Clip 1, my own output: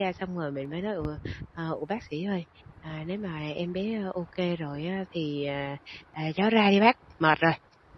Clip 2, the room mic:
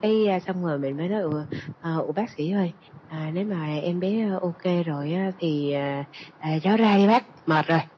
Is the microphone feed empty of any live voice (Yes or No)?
Yes